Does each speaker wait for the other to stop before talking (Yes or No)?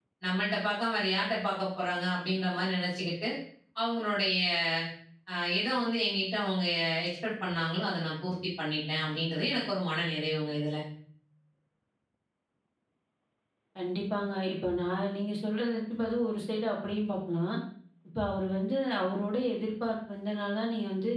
Yes